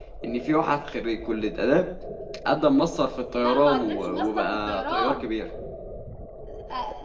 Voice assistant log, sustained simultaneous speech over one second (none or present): present